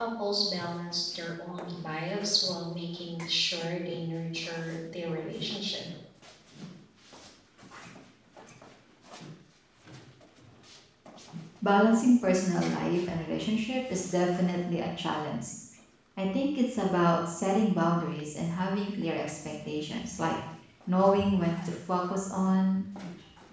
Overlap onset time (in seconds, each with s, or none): none